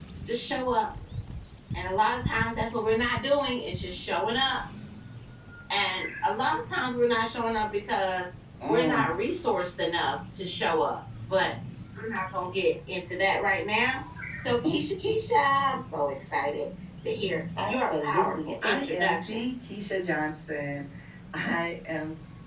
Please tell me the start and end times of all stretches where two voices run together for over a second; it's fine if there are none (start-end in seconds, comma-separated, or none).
17.6-19.4